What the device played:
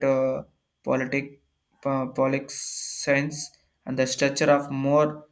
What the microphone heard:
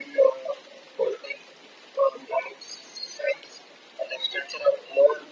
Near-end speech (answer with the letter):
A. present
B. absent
B